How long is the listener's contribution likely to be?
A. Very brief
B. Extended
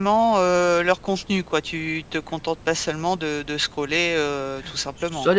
B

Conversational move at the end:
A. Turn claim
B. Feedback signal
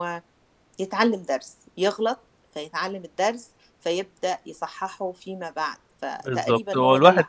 A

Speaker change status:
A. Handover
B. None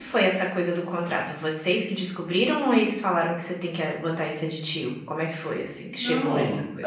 A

